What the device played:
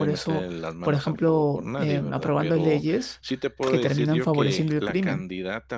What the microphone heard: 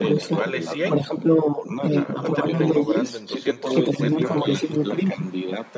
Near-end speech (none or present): present